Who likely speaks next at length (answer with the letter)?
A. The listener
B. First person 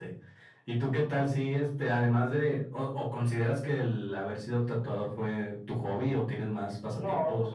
A